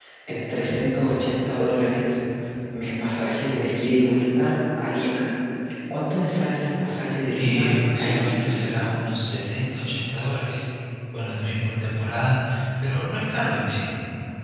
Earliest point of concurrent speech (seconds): 7 s

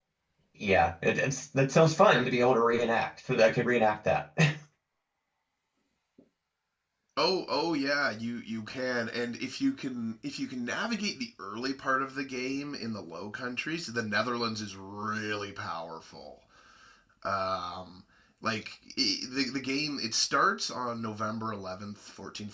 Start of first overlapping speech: none

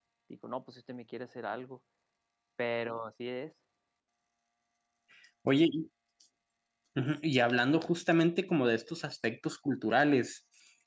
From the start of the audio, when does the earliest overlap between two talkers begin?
none

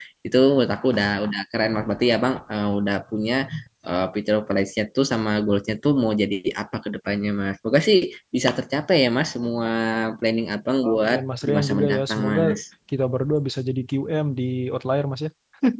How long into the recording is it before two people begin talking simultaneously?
11 s

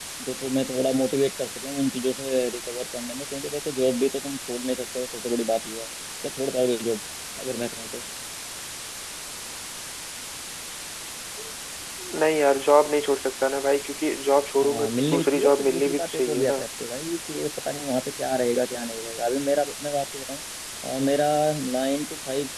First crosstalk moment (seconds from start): 15 s

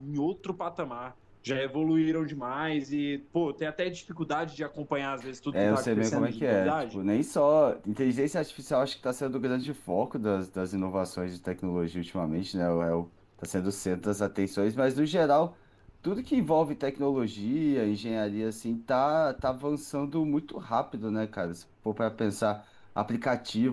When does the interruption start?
6 s

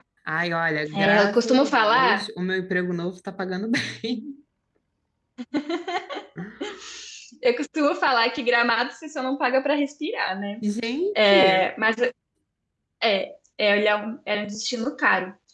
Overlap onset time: 1 s

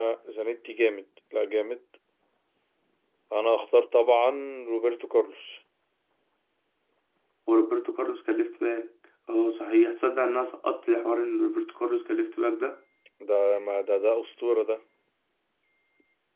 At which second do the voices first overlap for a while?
none

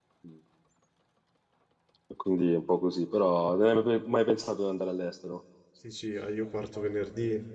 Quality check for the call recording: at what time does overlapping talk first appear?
none

